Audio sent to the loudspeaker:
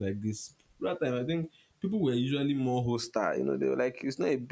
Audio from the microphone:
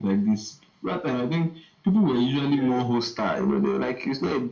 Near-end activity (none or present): present